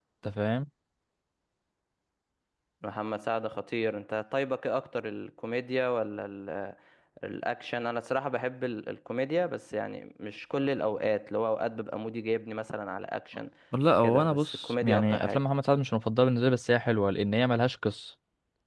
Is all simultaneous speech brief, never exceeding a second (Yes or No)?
No